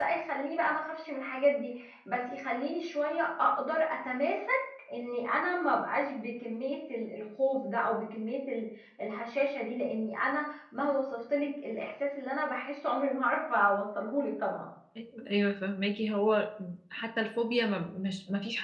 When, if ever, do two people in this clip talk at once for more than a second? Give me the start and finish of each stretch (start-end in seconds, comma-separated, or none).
none